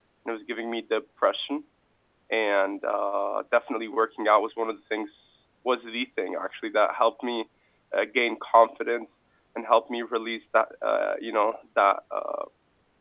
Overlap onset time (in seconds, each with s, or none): none